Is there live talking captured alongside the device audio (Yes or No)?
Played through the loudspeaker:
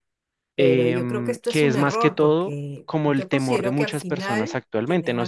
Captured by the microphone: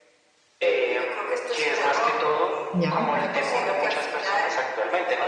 Yes